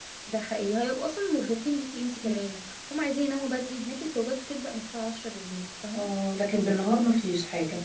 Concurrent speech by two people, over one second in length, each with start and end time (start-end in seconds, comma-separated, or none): none